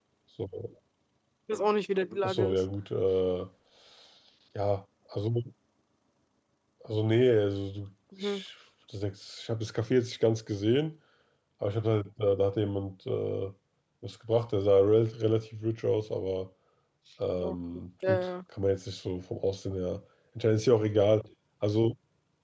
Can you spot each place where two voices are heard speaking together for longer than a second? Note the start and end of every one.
none

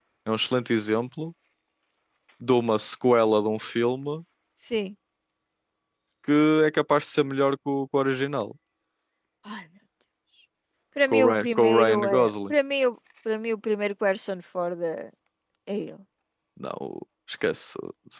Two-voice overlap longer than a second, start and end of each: 11.1-12.5

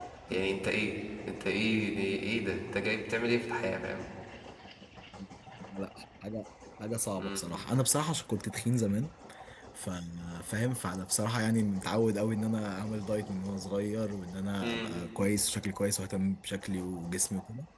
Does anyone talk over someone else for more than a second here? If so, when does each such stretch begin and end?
none

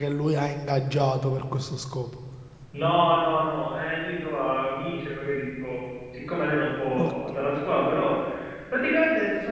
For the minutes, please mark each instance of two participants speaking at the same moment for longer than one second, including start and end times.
none

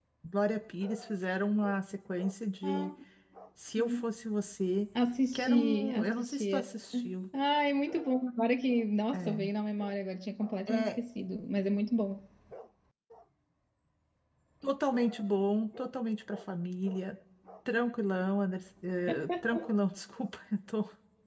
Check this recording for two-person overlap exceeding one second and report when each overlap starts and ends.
5.3-6.6

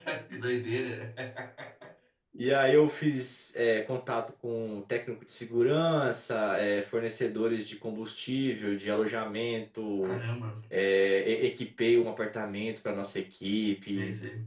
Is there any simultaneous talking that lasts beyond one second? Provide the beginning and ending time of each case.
none

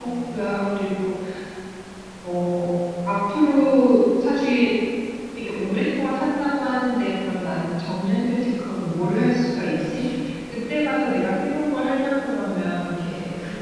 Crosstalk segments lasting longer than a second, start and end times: none

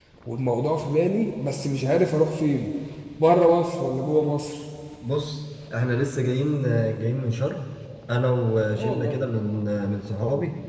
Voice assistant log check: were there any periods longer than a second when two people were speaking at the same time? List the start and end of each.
none

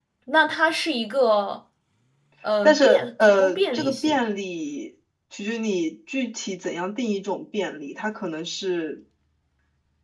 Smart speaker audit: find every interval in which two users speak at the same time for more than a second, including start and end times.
2.6-4.2

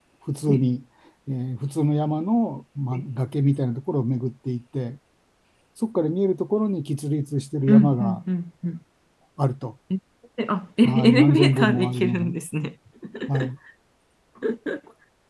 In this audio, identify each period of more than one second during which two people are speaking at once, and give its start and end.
10.8-12.3

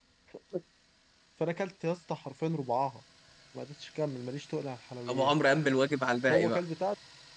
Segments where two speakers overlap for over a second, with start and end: none

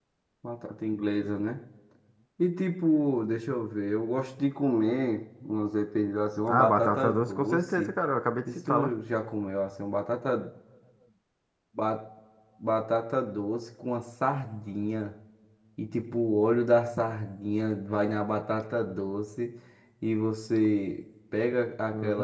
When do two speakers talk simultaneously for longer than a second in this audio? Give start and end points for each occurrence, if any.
6.5-7.9

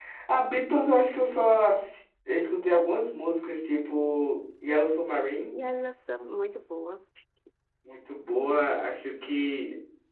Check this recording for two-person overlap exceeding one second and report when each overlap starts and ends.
none

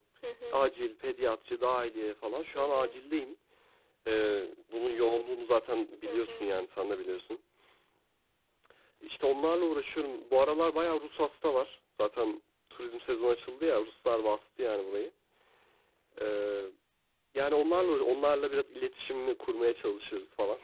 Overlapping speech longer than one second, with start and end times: none

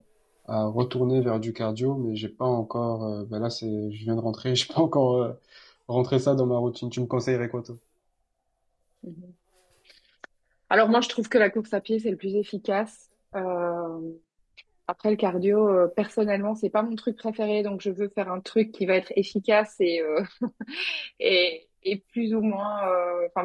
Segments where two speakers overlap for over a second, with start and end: none

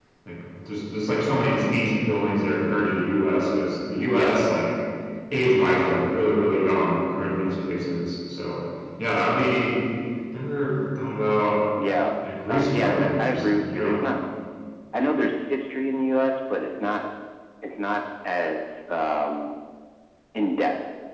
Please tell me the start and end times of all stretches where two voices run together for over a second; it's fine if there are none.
12.5-14.0

